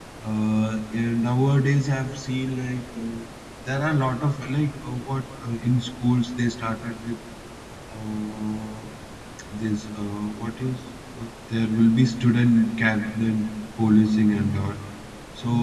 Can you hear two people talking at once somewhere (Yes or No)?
No